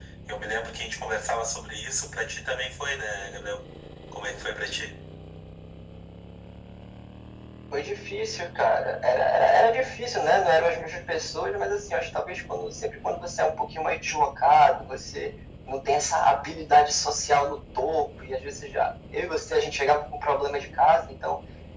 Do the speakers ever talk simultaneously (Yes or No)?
No